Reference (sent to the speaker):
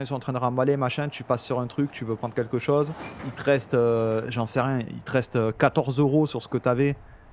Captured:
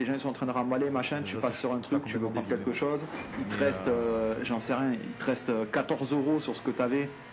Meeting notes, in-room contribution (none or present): present